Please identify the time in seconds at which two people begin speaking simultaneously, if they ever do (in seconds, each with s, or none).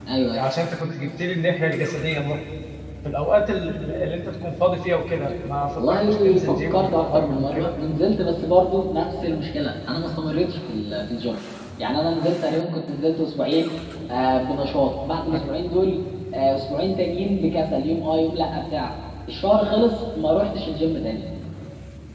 5.8 s